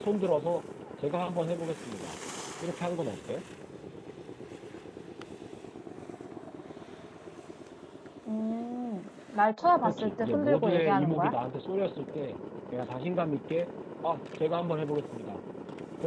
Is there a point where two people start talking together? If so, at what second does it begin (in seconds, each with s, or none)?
9.8 s